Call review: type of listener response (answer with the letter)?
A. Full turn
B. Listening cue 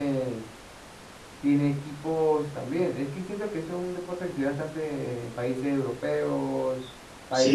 A